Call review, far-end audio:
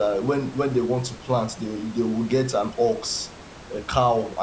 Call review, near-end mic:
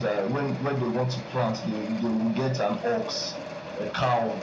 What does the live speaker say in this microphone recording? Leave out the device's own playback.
none

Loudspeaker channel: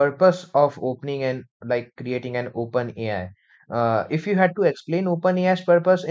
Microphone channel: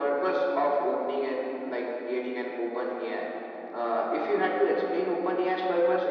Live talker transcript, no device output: none

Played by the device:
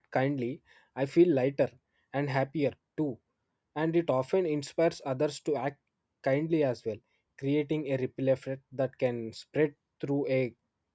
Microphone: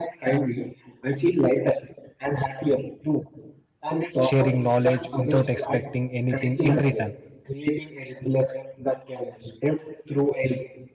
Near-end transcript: sharing knowledge without expecting anything in return,

